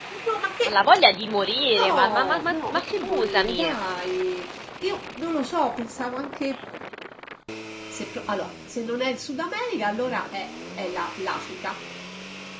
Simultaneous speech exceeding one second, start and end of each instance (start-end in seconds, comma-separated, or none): 1.7-3.7